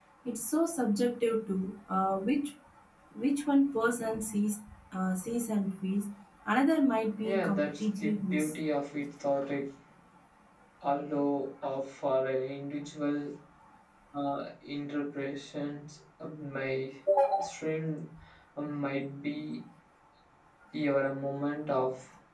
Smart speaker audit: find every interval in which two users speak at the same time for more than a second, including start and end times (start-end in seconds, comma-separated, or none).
7.2-8.5